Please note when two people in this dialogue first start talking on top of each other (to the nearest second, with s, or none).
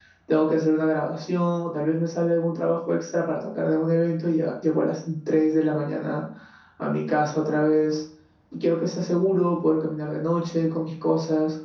none